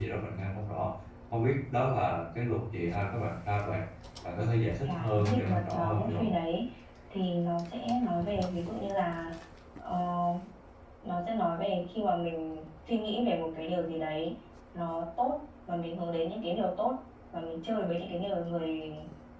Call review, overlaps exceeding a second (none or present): present